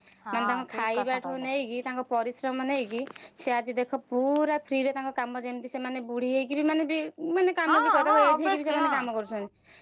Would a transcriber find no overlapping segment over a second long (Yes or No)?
No